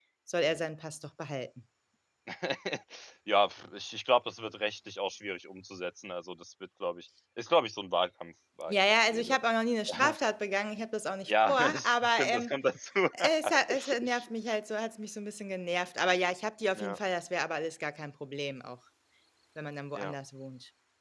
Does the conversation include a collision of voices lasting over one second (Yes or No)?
Yes